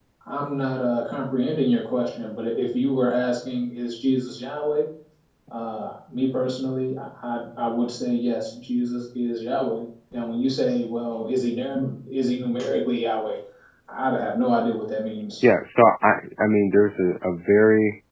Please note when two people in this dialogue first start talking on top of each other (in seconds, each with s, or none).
none